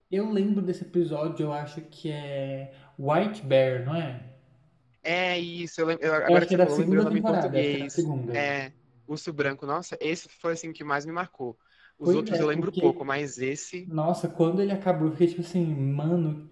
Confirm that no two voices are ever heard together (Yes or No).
No